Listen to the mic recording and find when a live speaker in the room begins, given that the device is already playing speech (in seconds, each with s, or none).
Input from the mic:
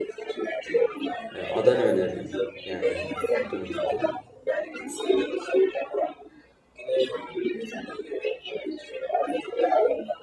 1.4 s